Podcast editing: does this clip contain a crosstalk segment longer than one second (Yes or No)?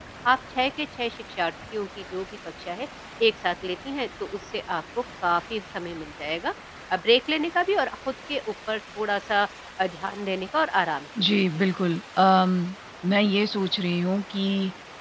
No